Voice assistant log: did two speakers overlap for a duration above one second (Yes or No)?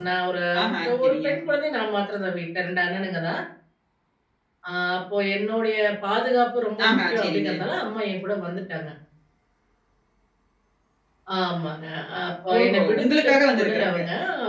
Yes